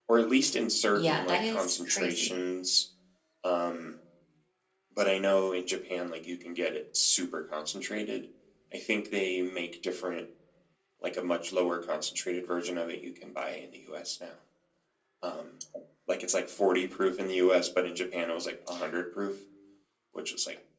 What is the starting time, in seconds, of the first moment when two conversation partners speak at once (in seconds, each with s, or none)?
1.0 s